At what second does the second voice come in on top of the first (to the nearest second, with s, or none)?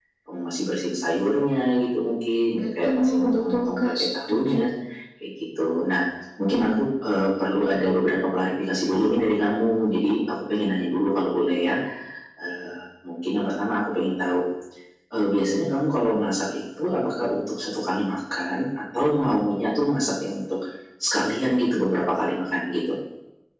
3 s